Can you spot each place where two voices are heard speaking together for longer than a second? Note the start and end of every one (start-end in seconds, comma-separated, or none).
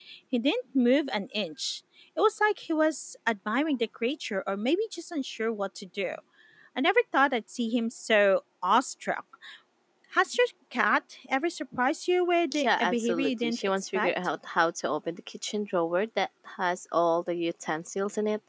12.6-14.1